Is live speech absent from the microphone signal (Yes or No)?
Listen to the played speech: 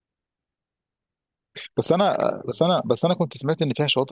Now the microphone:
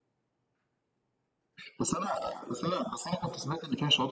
Yes